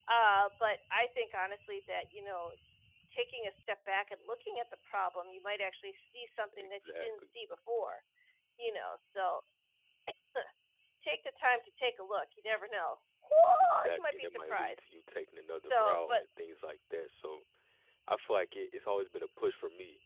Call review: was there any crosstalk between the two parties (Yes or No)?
Yes